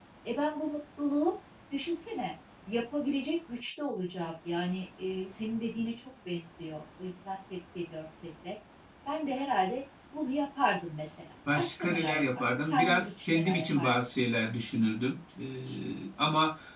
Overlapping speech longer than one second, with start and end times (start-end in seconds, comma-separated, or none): 11.5-13.9